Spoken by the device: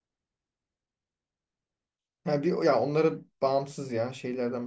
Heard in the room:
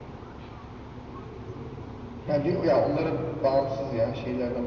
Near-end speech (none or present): none